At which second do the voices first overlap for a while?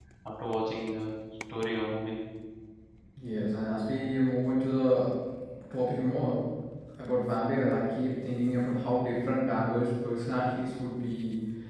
none

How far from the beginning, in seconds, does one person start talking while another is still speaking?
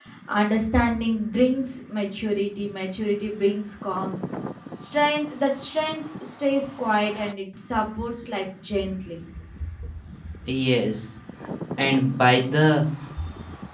none

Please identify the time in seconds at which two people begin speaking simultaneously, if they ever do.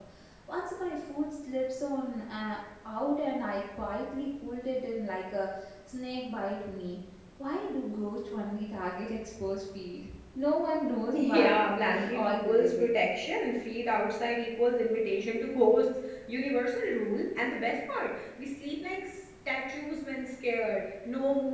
11.1 s

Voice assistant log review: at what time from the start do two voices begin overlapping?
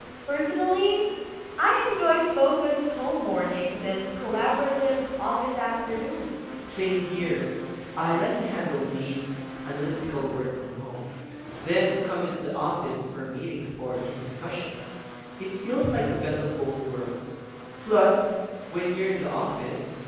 none

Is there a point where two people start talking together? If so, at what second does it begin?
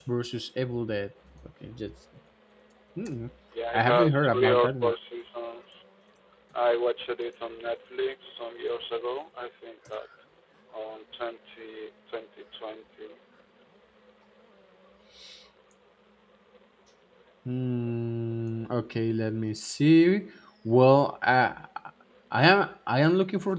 3.7 s

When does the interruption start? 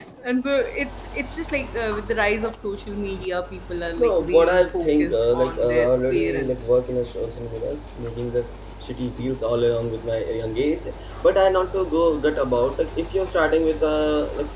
4.0 s

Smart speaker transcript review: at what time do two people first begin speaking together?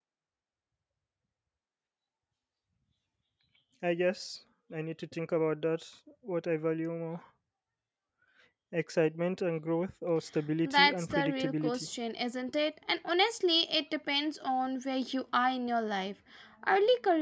10.6 s

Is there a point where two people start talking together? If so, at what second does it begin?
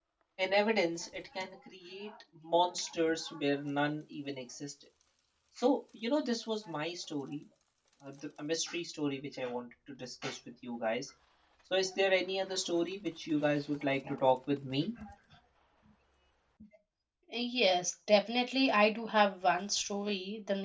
none

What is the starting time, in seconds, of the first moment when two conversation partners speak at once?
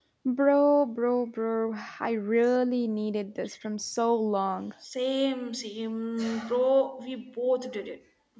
none

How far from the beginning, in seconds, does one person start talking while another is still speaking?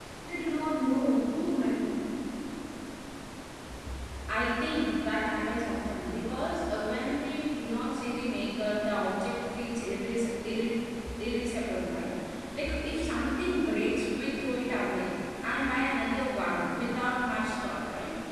none

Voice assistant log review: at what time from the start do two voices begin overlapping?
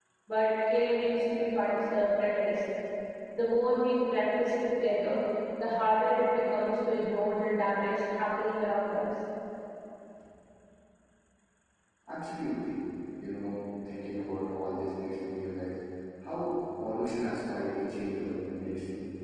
none

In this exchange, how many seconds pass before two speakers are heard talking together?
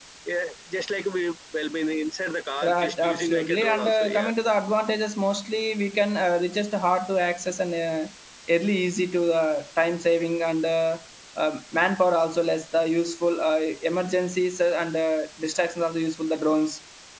2.6 s

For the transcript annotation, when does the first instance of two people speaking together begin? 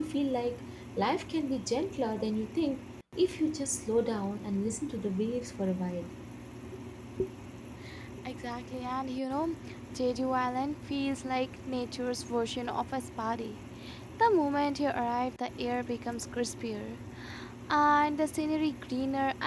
none

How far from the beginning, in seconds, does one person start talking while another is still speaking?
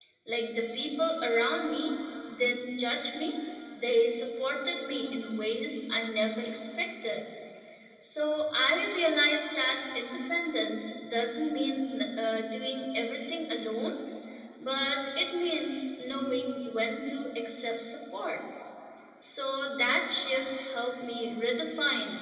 none

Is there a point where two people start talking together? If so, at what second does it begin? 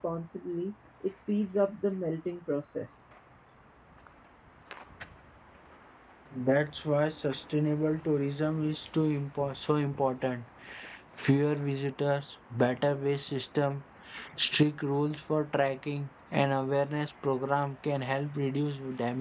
none

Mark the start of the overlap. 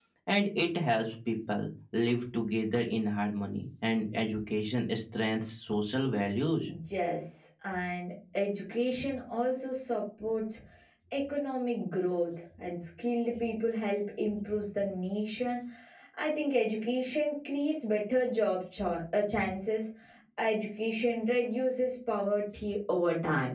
none

